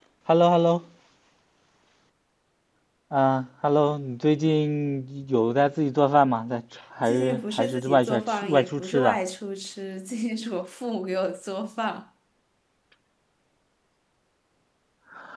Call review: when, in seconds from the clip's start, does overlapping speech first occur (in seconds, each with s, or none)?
7.0 s